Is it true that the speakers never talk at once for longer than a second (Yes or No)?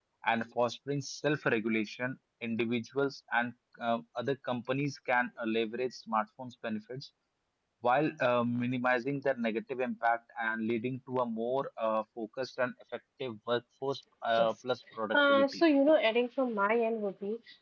Yes